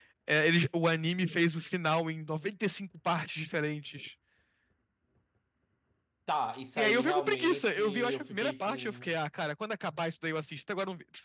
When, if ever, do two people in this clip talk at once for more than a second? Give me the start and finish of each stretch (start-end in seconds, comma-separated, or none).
6.8-9.1